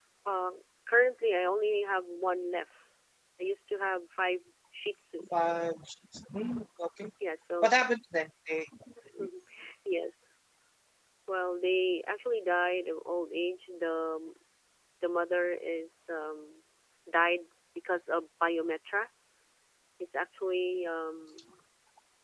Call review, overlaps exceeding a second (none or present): none